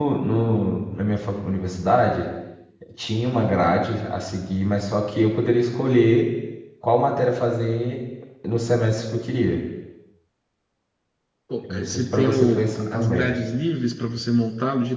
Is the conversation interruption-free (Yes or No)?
No